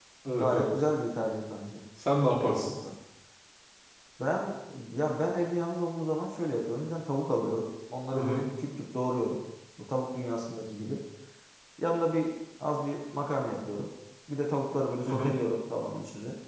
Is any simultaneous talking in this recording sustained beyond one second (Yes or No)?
No